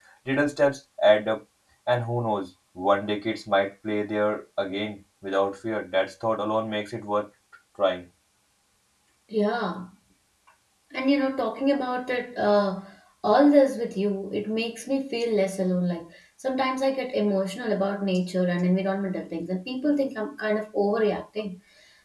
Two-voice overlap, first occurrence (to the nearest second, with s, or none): none